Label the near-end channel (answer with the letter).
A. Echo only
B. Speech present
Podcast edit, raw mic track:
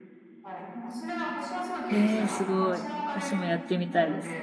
B